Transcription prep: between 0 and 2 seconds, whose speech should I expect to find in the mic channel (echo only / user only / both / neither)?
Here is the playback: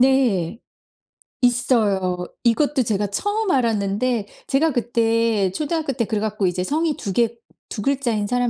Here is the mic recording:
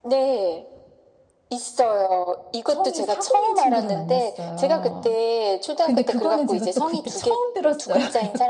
echo only